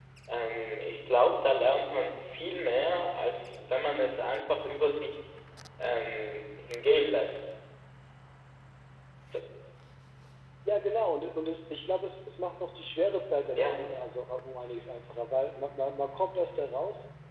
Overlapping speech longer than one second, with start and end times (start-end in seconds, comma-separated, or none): none